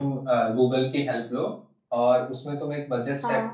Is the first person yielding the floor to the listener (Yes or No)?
No